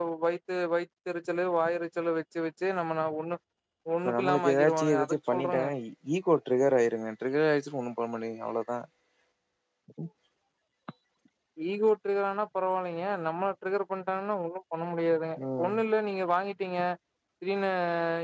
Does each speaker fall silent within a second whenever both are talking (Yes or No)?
No